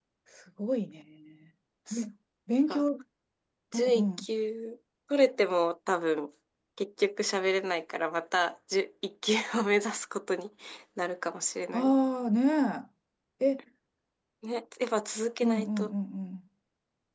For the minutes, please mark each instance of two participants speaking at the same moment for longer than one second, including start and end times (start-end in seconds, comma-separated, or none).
none